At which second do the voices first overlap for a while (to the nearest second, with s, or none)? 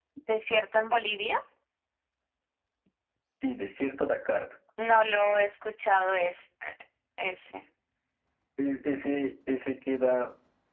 none